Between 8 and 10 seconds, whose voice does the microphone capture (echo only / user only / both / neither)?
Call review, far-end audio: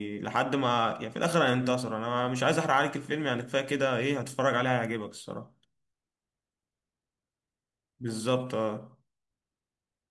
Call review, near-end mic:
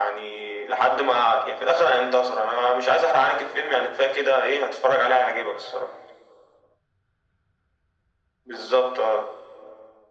echo only